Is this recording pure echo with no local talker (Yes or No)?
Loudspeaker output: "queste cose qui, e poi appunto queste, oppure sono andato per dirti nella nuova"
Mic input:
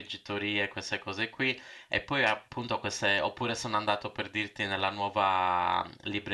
Yes